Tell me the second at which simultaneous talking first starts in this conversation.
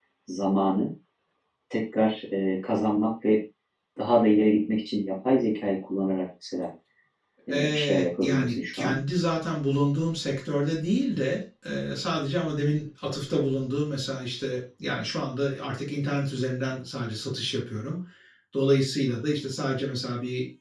7.5 s

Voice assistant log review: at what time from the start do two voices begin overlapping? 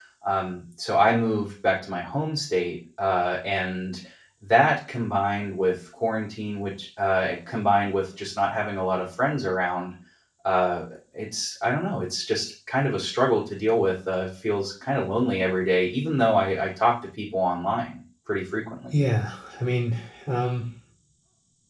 none

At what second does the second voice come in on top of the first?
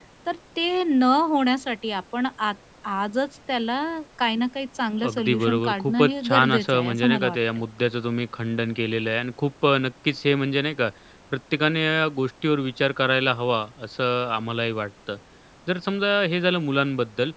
5.0 s

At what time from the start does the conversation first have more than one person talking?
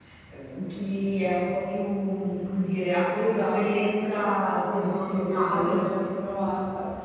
3.2 s

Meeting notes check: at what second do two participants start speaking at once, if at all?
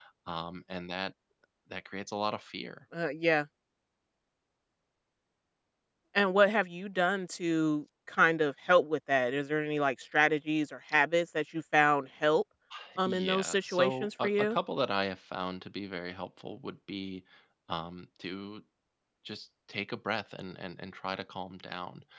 13.1 s

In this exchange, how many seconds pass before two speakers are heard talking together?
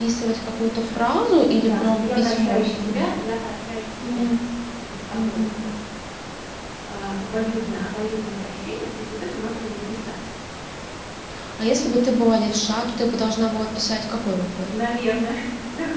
1.5 s

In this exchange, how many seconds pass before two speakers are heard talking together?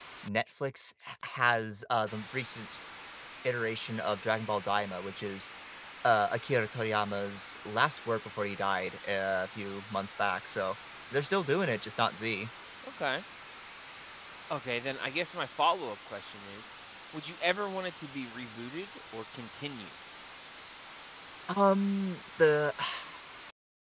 none

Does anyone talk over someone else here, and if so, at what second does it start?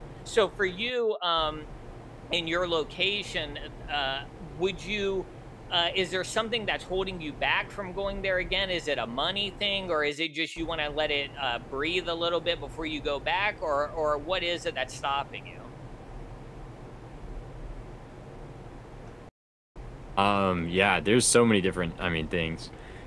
none

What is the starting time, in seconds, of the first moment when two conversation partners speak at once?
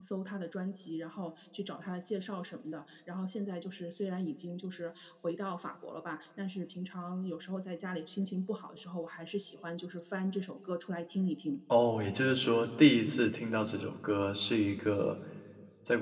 none

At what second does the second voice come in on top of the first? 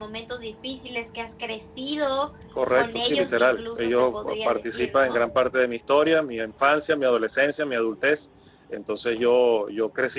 2.7 s

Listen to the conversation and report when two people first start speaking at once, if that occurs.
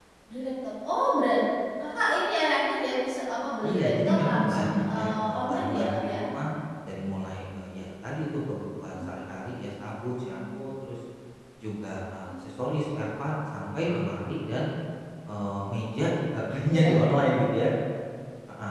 3.6 s

